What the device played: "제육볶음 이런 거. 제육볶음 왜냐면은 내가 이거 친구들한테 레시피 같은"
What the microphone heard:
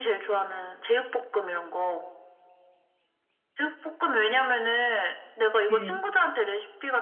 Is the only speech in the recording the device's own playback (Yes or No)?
No